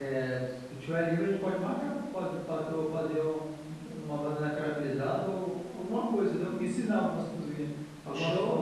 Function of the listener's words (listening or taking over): taking over